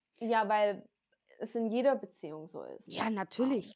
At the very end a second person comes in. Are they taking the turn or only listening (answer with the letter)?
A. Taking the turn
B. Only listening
A